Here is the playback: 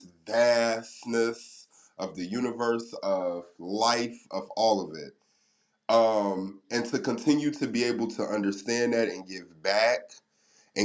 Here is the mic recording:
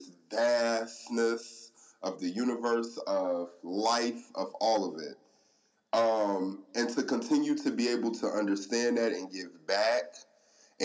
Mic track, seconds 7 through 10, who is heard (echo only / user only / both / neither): echo only